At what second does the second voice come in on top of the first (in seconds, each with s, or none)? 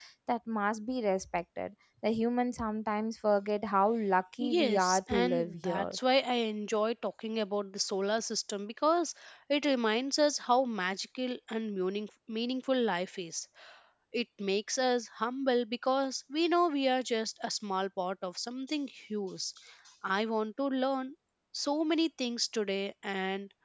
4.4 s